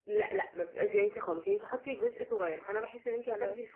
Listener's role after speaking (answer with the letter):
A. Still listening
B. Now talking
A